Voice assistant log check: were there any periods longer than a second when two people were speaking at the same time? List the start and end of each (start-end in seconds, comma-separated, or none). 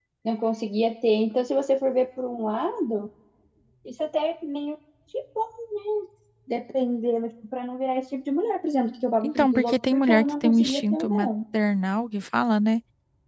9.2-11.3